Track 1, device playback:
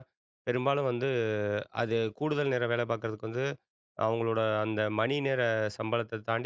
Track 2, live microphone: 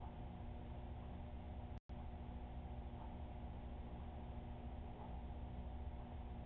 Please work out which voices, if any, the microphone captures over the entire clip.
neither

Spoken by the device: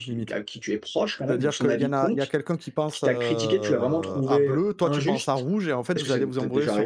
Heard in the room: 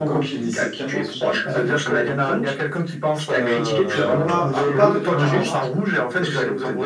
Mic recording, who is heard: both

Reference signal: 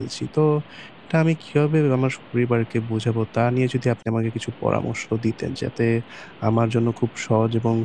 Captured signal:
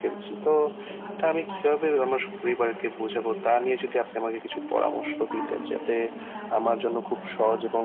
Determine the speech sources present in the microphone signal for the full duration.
both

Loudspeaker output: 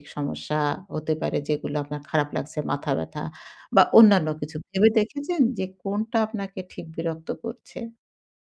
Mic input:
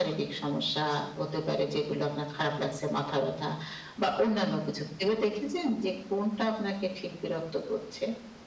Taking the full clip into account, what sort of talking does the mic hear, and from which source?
echo only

